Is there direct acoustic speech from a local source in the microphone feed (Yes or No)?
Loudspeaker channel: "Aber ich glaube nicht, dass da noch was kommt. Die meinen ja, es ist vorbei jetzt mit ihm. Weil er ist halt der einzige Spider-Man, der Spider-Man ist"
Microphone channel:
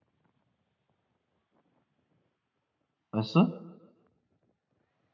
Yes